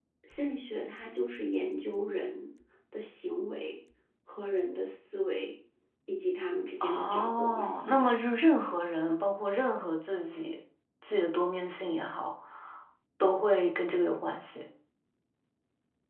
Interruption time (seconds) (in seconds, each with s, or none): 6.8 s